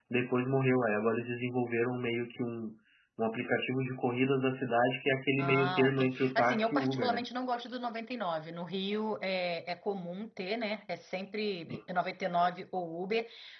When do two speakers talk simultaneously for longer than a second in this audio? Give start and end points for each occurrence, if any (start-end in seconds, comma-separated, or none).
5.4-7.2